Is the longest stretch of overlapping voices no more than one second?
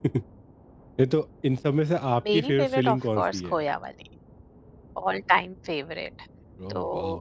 No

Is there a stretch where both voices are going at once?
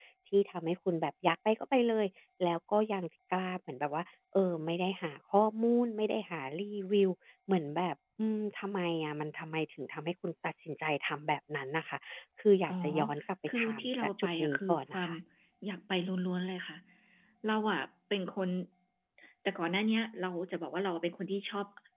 Yes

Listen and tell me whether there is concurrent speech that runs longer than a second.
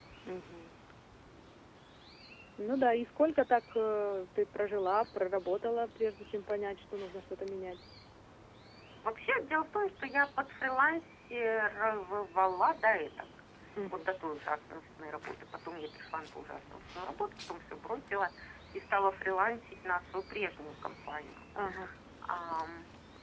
No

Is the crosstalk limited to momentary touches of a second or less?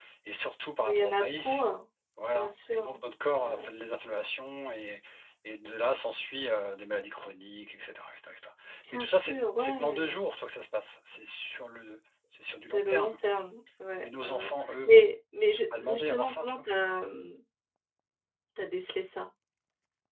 No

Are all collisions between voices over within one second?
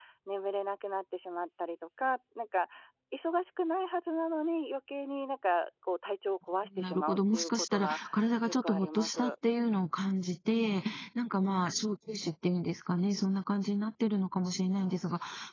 No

